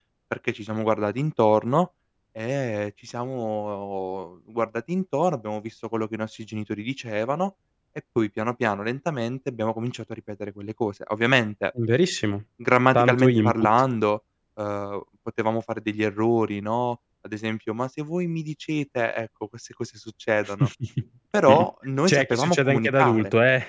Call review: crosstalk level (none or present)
present